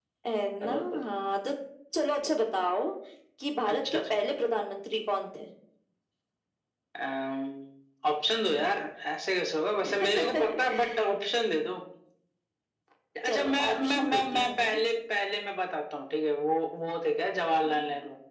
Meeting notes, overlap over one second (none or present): present